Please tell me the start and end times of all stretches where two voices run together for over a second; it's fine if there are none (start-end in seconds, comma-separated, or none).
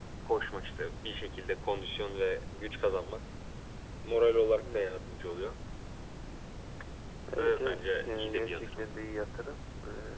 7.4-8.9